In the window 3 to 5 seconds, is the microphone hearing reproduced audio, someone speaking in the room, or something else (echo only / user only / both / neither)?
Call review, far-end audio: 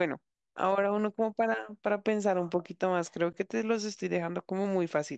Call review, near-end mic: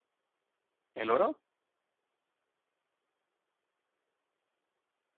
neither